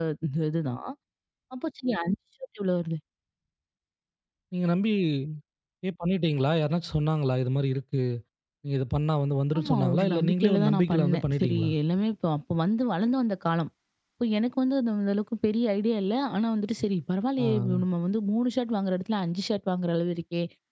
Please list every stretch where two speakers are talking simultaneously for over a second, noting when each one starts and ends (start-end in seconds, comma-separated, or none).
9.6-11.7